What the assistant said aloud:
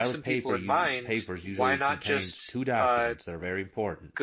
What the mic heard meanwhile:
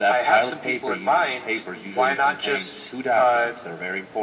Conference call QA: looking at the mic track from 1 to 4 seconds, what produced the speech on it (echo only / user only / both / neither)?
echo only